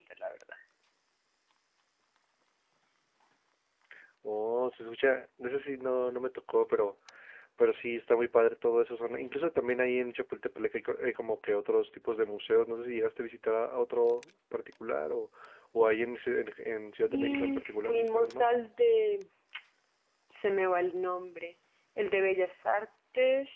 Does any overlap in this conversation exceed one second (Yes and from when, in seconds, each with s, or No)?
Yes, from 17.1 s